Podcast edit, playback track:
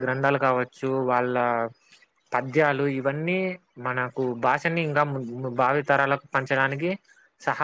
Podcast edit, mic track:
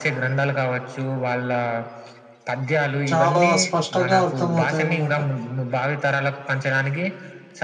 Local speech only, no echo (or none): చాలా స్పష్టంగా అర్థమవుతాయనమాట